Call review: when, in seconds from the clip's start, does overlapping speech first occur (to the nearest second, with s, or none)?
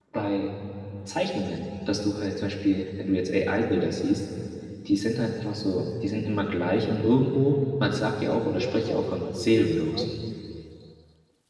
9 s